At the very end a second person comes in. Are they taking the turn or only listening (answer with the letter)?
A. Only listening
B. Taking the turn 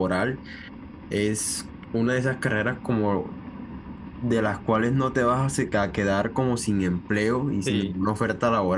A